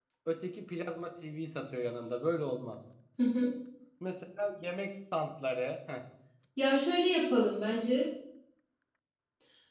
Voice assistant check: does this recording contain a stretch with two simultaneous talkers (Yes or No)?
No